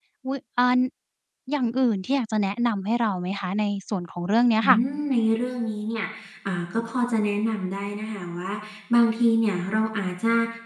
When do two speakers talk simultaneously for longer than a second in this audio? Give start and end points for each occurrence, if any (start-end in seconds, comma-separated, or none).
none